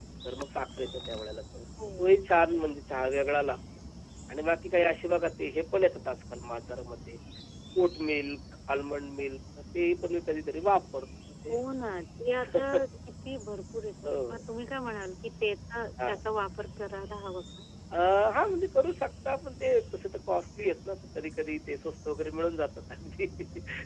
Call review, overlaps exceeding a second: none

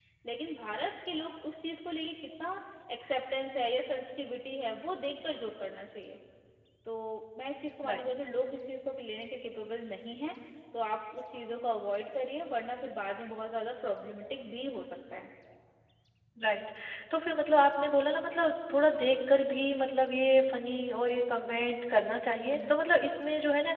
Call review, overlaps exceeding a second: none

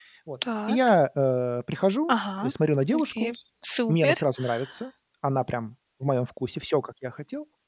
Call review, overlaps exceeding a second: none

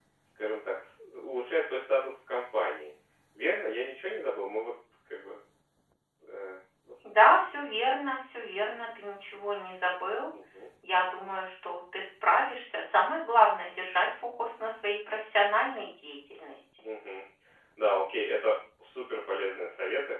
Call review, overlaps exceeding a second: none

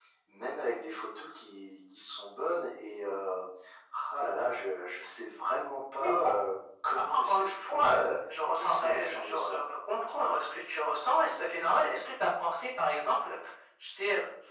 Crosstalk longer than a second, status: present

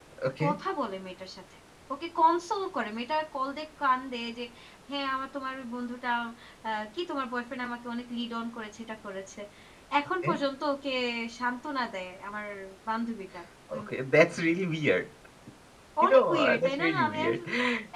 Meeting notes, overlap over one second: present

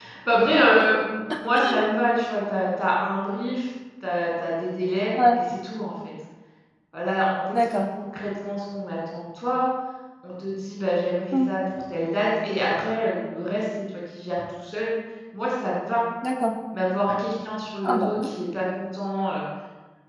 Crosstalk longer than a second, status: none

